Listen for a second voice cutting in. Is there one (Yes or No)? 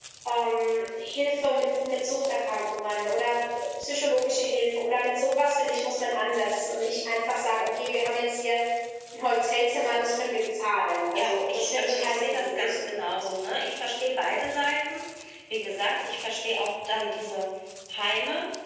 Yes